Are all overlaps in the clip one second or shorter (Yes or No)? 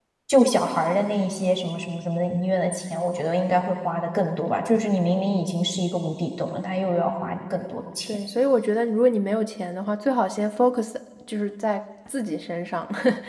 Yes